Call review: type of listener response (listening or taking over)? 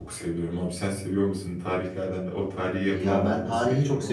taking over